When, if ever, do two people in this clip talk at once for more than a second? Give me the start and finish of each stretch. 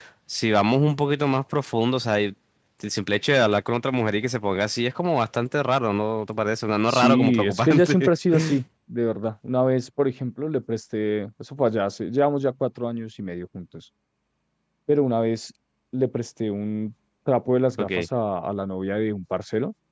6.9-8.1

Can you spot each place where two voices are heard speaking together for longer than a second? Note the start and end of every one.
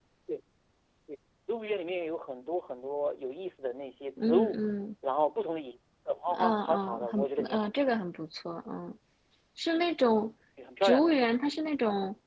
6.3-7.7

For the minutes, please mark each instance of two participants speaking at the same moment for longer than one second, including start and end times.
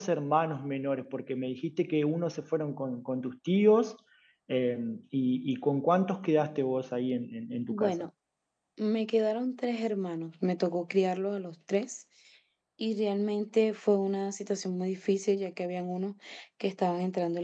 none

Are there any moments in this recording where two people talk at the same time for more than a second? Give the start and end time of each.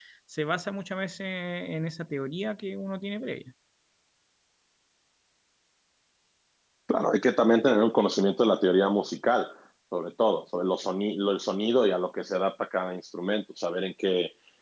none

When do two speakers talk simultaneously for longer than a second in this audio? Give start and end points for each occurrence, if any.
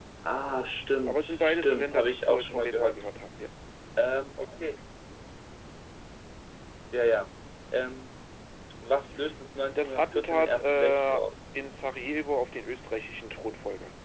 1.1-3.0, 9.8-11.3

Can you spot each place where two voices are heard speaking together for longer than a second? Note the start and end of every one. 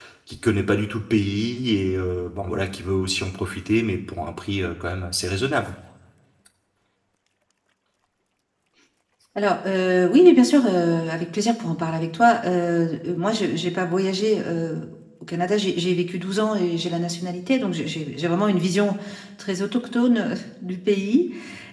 none

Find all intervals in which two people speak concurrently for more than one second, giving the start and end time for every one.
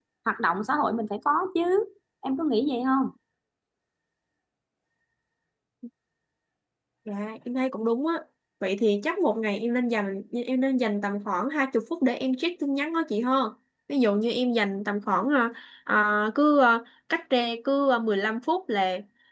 none

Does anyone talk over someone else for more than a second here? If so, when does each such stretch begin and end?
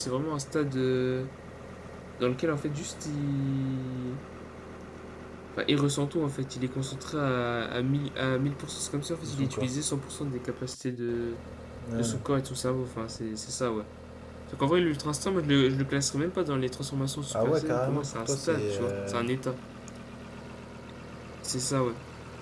17.3-19.2

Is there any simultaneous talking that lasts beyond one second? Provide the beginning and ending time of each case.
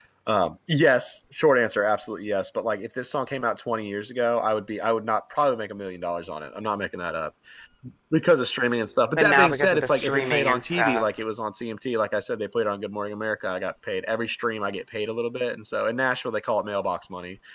9.2-11.2

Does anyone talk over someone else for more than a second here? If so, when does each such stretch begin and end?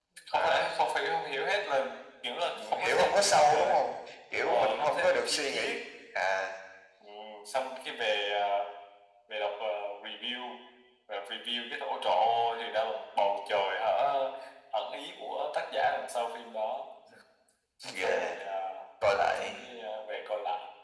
2.5-3.8, 4.4-5.7

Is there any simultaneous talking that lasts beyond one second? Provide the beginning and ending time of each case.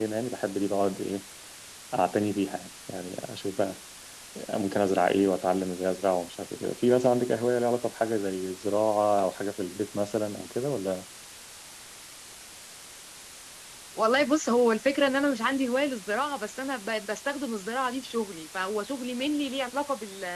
none

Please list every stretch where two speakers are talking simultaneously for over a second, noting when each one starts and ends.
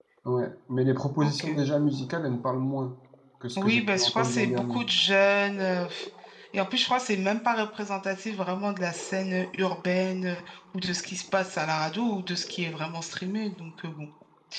3.6-4.8

